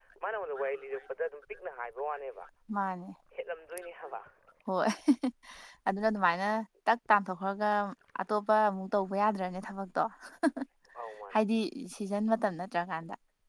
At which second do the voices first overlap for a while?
none

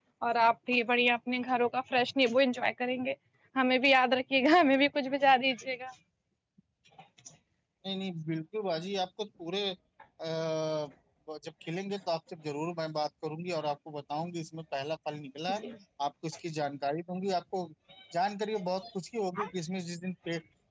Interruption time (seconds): none

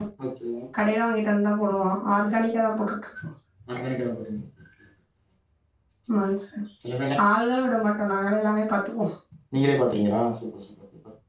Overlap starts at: none

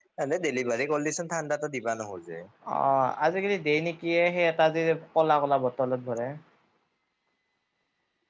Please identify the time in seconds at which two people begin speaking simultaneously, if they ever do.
none

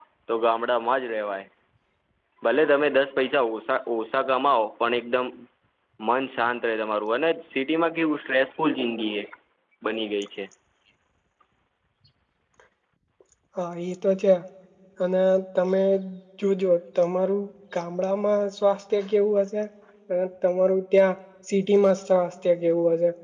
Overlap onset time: none

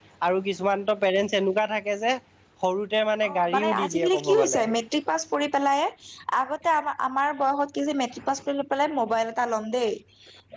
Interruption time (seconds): 3.3 s

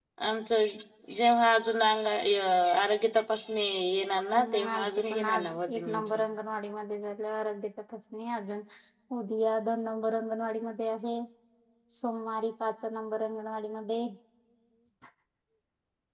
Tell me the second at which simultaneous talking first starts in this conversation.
4.3 s

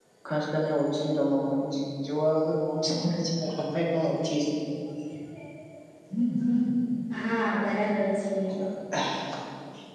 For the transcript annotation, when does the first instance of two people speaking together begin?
none

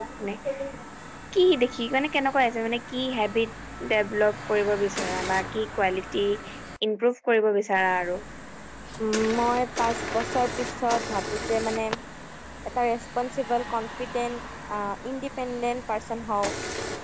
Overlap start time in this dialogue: none

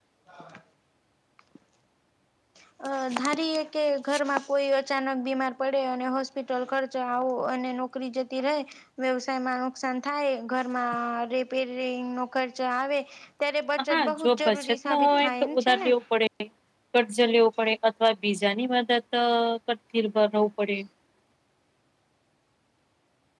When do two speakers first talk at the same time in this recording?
13.9 s

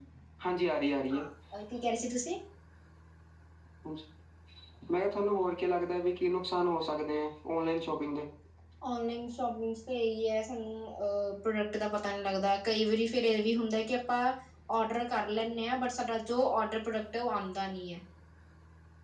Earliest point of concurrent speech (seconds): none

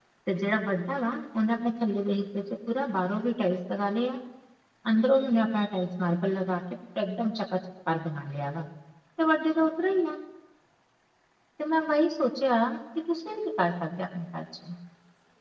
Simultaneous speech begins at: none

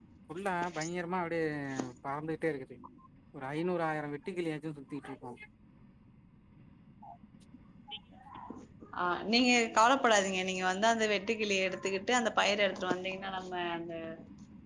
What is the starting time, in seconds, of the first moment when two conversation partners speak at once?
none

